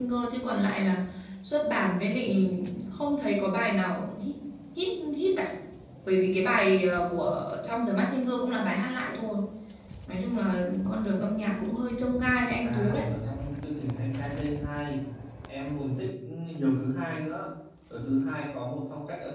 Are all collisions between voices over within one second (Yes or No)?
Yes